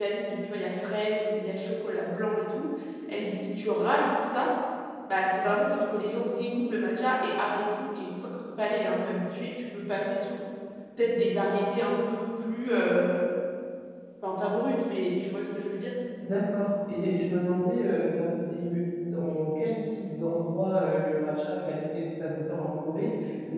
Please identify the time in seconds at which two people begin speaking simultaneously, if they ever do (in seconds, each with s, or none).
none